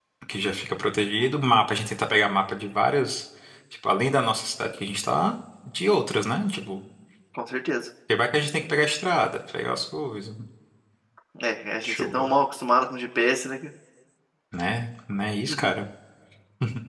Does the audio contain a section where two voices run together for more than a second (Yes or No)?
No